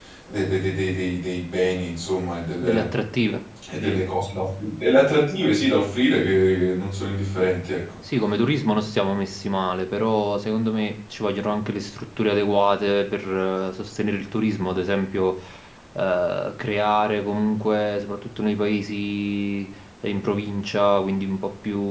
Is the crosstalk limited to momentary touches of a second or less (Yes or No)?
Yes